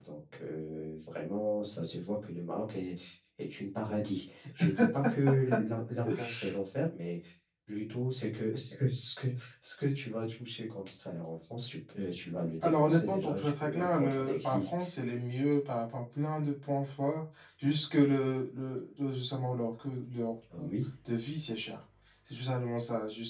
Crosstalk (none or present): present